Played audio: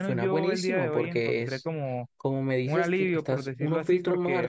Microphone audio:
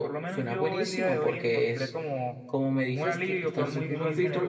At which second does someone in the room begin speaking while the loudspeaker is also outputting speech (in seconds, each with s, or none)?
3.5 s